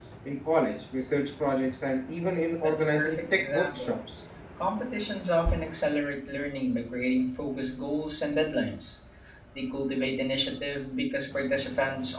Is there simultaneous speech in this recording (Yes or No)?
Yes